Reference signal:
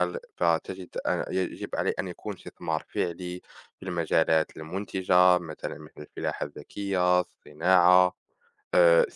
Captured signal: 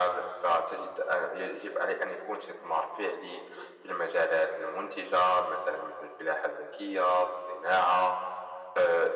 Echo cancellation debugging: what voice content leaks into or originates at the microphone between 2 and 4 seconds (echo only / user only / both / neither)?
echo only